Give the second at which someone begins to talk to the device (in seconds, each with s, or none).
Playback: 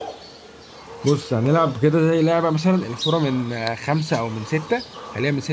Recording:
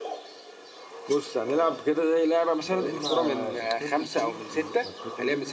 2.6 s